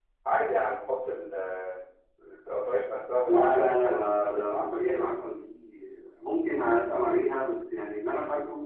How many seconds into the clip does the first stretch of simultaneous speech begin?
3.2 s

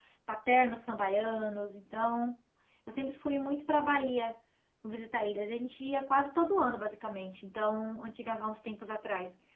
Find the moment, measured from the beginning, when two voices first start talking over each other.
none

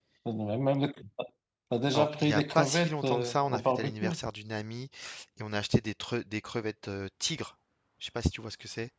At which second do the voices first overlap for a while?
1.9 s

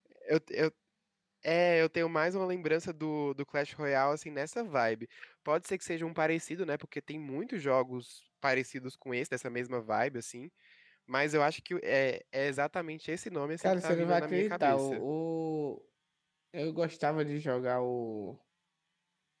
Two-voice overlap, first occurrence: 13.6 s

